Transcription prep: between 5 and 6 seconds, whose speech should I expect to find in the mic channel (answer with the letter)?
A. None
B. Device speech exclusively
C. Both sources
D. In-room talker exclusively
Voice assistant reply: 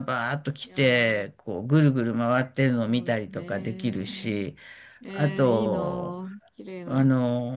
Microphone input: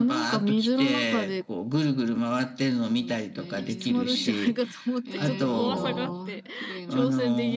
C